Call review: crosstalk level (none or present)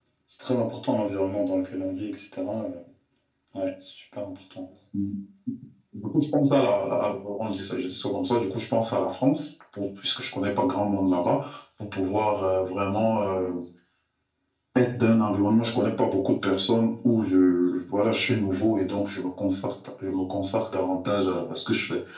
none